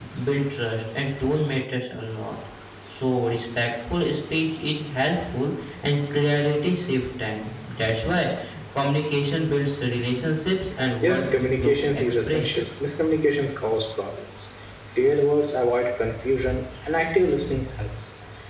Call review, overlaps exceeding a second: present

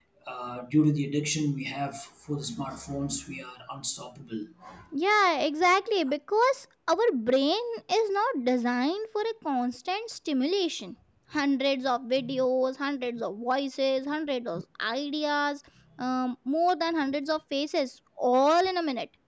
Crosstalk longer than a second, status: none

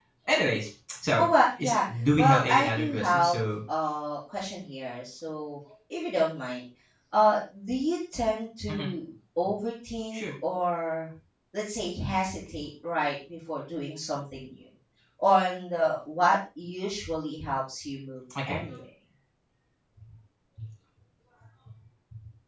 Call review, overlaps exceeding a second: present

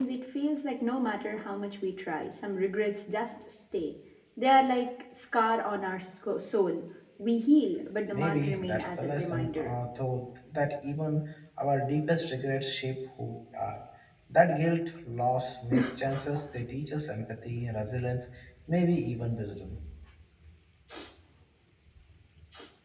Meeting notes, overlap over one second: present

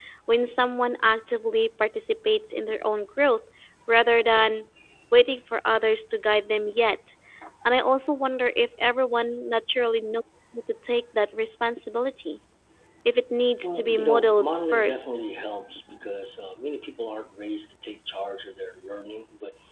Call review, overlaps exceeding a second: present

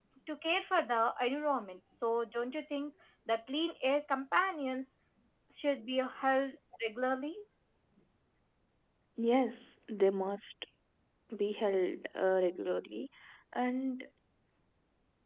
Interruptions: none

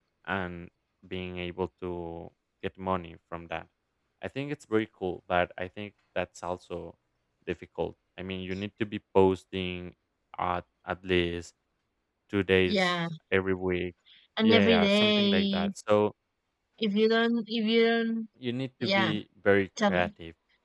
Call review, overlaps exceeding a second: present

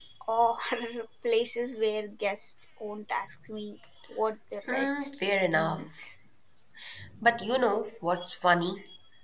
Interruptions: present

